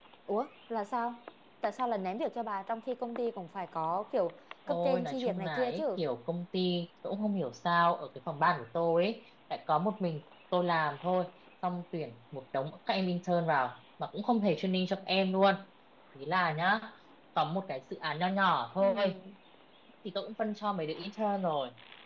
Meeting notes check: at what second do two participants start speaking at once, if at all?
5 s

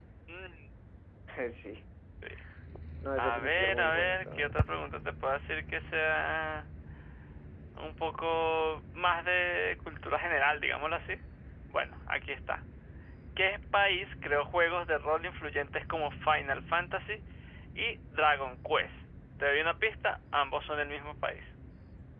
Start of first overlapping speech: 3 s

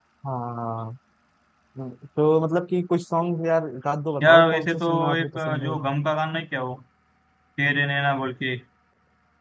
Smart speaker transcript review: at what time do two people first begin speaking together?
4 s

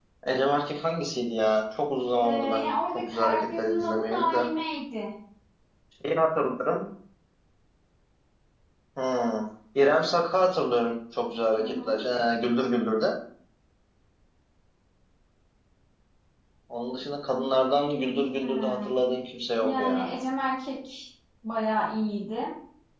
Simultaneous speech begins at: 2 s

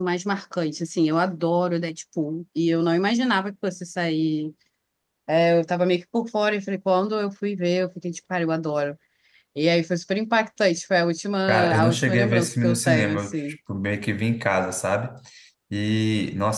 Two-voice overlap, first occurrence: 12 s

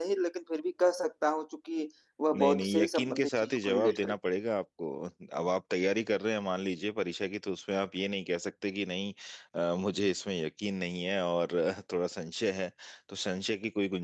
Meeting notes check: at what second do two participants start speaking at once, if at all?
2 s

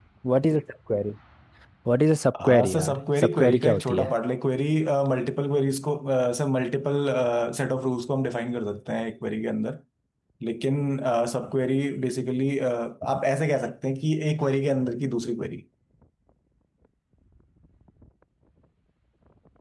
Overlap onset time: 2 s

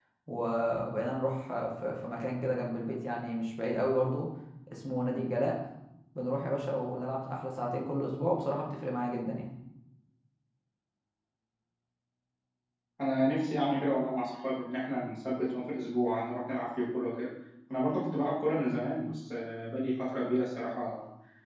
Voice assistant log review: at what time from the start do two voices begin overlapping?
none

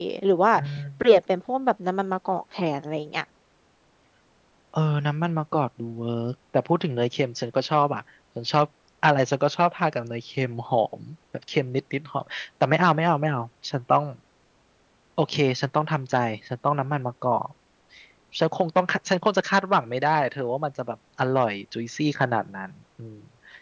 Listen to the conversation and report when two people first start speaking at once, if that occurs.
none

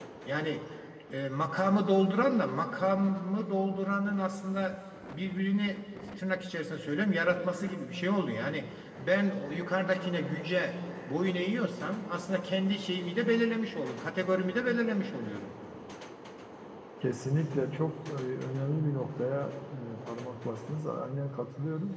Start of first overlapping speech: none

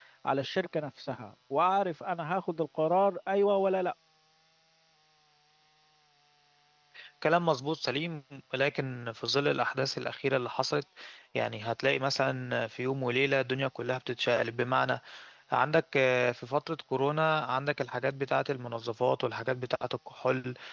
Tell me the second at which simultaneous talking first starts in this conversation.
none

